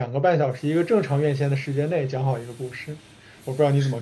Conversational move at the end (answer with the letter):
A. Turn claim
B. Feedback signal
A